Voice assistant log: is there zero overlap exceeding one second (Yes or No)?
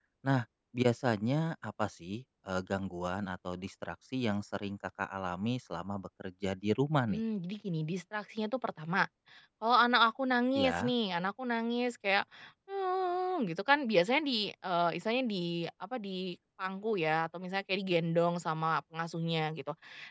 Yes